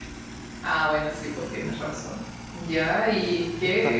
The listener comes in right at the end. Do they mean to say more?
No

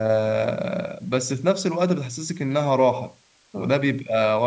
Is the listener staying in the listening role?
Yes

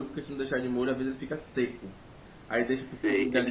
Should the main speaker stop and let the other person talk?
Yes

